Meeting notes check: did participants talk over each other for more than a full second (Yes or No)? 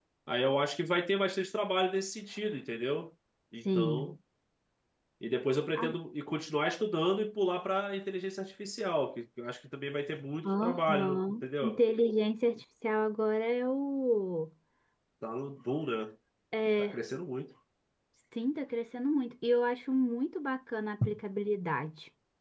Yes